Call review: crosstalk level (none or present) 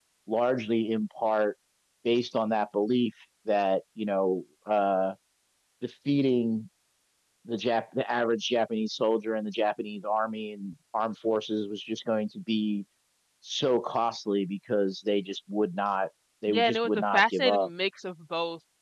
present